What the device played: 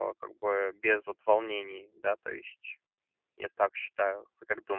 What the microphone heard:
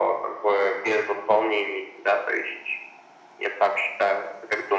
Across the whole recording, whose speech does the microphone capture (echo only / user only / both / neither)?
echo only